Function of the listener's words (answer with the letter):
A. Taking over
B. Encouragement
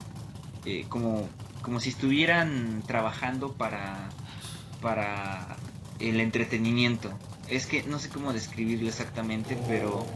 B